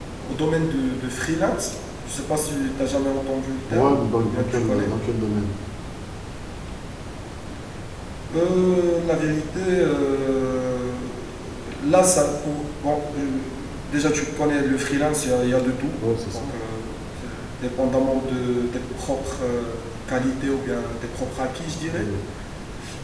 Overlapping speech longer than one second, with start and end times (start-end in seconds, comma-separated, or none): 3.7-4.9